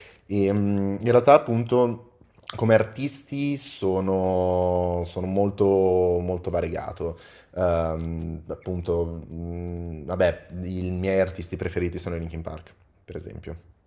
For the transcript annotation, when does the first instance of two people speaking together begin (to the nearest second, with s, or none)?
none